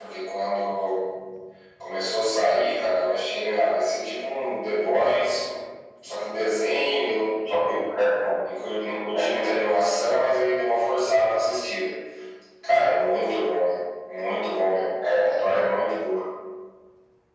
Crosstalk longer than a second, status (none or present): none